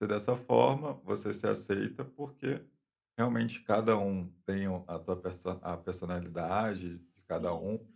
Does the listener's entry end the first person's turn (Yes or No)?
No